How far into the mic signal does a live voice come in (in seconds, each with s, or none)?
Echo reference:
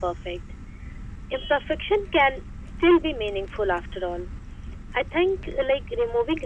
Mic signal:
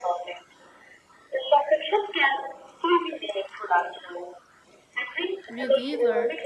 5.5 s